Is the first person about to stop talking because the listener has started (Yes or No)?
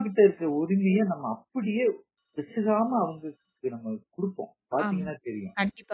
Yes